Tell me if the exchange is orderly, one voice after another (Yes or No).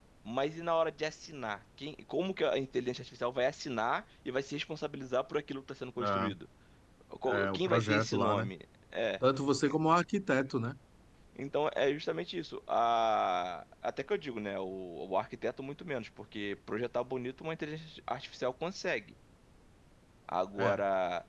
No